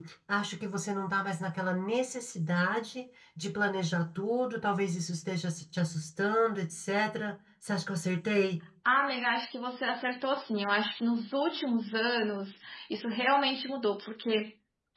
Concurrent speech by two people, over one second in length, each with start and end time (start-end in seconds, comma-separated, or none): none